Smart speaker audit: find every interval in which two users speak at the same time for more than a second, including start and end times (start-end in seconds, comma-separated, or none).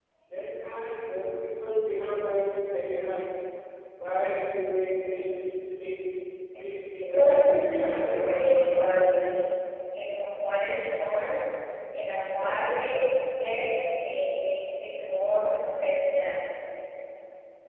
7.0-9.1